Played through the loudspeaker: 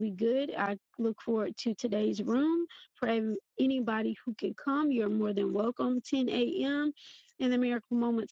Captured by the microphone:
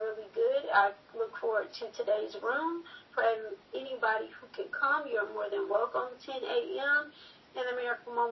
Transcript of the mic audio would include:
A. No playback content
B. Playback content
B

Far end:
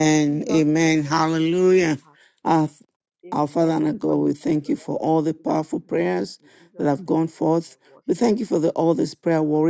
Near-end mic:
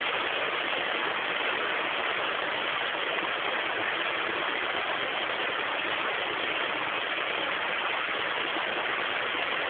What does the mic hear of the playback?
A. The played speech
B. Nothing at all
B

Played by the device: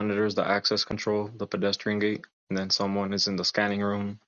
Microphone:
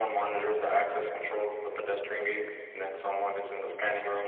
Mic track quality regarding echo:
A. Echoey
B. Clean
A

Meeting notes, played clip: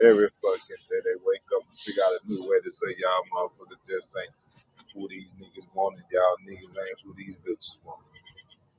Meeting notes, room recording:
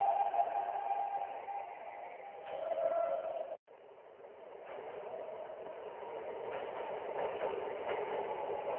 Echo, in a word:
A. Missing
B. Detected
A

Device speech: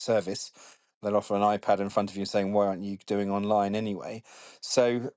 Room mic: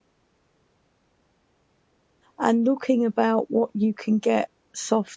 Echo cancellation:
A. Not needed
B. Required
A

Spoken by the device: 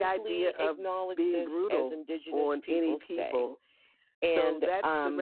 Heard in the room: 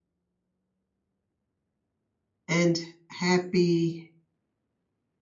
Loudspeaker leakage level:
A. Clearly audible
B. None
B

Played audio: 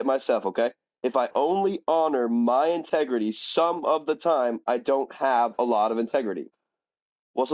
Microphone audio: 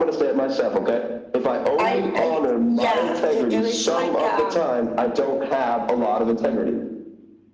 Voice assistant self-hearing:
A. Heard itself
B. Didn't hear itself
A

